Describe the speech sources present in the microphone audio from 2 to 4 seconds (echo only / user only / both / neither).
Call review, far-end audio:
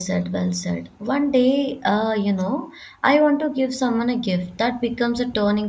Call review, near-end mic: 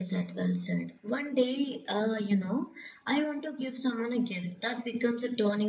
echo only